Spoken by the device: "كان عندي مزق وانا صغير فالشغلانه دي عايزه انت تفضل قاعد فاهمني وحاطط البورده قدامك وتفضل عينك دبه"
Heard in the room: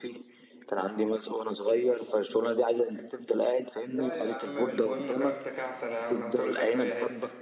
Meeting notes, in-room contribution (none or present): present